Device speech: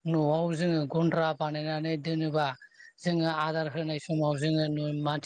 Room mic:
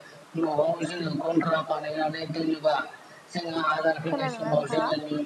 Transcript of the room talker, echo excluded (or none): खोनादोंना नोंथाङा।